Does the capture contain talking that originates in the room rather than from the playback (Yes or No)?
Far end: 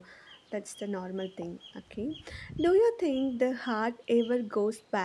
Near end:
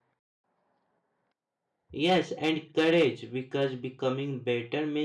Yes